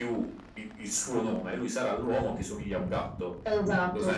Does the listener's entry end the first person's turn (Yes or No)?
Yes